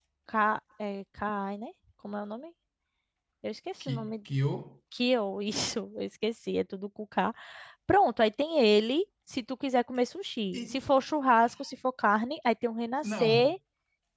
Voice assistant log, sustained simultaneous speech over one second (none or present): none